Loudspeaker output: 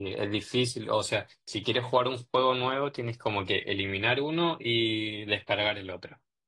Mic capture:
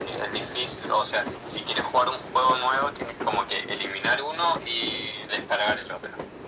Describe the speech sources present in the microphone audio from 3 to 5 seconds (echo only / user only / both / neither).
echo only